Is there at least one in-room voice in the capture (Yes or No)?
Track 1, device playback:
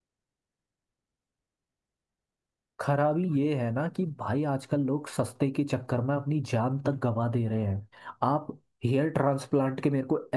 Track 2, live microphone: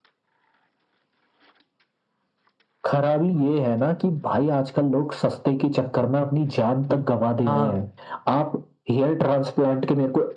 Yes